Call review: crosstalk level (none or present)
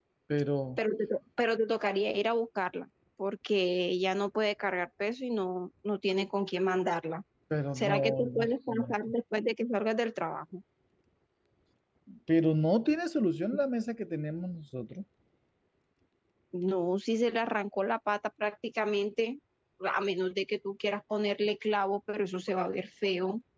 present